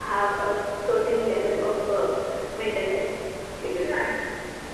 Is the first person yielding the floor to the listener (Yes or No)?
Yes